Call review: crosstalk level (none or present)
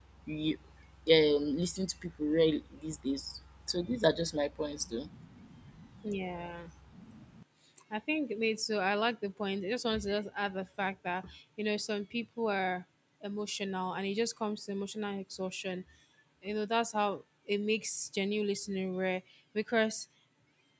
none